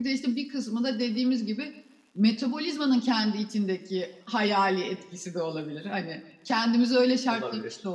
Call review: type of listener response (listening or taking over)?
listening